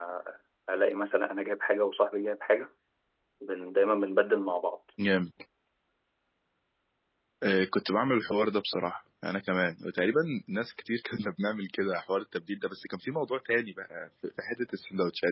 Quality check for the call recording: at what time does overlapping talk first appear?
none

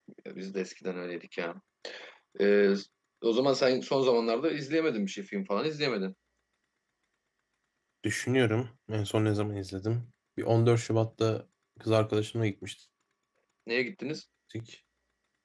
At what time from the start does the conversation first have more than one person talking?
none

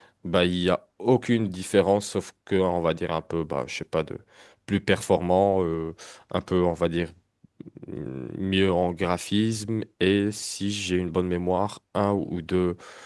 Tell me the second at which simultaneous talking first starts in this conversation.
none

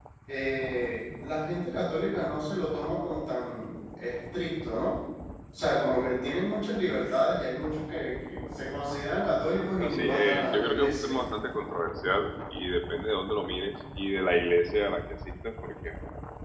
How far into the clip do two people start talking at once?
9.8 s

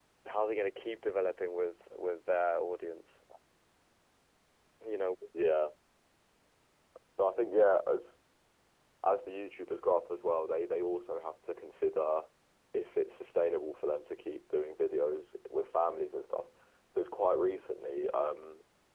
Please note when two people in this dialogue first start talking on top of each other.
none

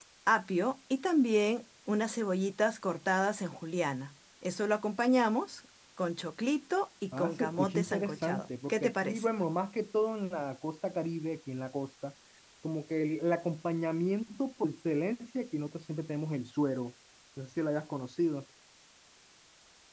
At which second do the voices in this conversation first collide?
7.1 s

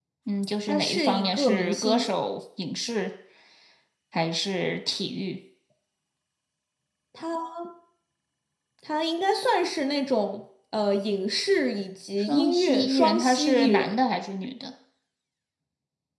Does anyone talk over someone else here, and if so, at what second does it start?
0.7 s

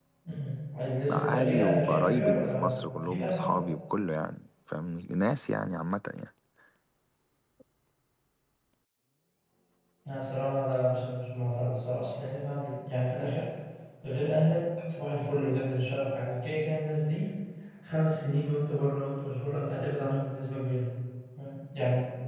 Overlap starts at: 1.1 s

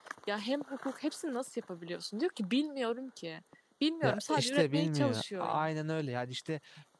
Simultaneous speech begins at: 4.0 s

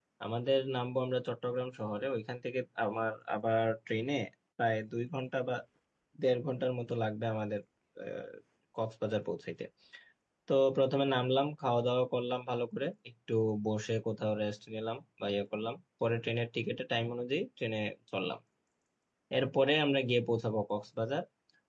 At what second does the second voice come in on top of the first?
none

